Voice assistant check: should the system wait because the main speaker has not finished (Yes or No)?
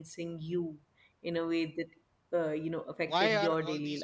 No